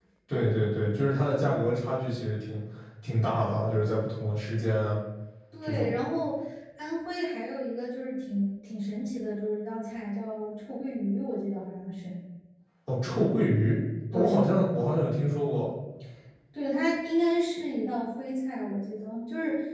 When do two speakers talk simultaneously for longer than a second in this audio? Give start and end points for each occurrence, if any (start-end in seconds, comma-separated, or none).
none